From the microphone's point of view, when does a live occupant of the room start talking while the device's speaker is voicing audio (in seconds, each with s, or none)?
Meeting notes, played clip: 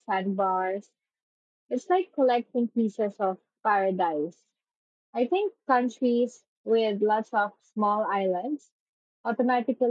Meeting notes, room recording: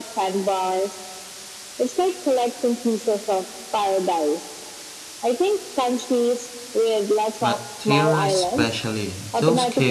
7.4 s